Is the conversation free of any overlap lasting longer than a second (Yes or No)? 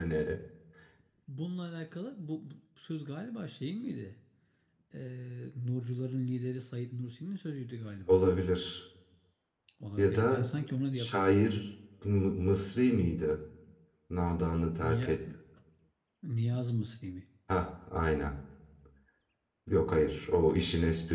Yes